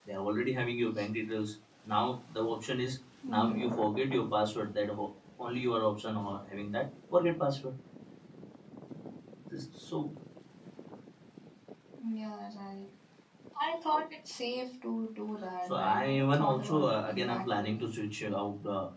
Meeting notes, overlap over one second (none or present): present